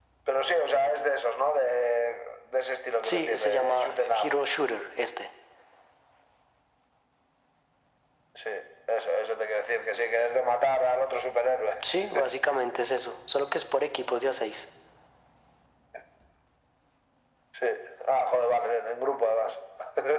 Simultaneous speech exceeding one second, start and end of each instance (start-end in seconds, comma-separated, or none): 3.0-4.3